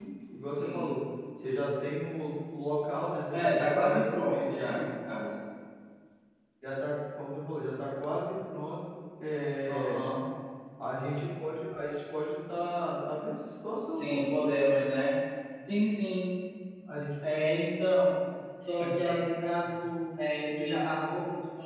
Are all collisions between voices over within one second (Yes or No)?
No